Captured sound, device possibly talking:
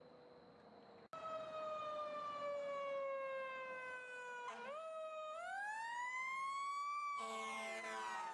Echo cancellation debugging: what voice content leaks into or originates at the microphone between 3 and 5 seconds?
neither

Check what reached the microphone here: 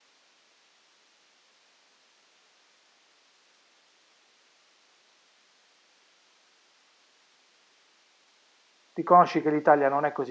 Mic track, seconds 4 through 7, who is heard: neither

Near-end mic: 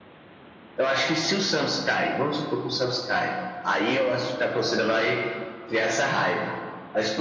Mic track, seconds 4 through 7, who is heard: echo only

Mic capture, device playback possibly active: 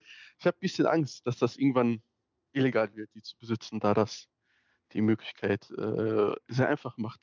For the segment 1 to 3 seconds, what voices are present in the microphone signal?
user only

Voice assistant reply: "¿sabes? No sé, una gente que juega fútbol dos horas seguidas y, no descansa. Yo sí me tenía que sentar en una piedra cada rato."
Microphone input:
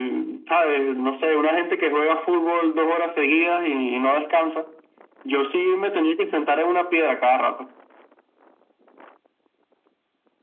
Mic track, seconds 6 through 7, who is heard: echo only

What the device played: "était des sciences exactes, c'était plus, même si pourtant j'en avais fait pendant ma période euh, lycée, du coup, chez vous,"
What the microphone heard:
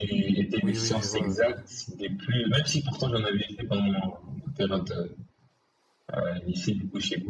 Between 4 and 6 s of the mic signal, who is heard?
echo only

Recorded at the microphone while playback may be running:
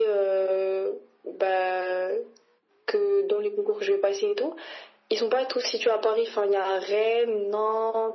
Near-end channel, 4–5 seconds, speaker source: echo only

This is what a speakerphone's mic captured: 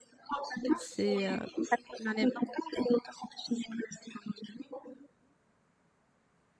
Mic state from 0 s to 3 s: both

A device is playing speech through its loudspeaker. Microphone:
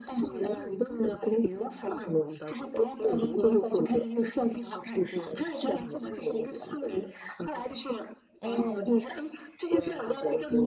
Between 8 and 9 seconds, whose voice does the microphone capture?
both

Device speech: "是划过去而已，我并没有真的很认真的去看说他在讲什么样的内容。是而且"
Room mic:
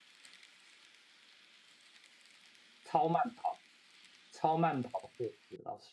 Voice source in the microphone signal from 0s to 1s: neither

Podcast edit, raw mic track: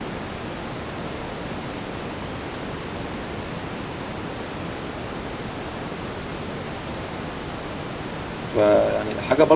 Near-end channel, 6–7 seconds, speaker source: neither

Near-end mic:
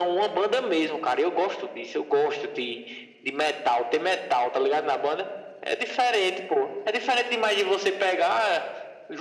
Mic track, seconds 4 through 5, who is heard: echo only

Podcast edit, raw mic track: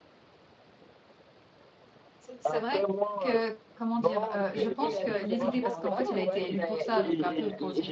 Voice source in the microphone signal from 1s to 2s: neither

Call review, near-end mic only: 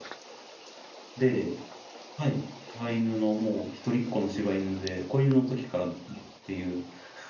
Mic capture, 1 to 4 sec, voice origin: user only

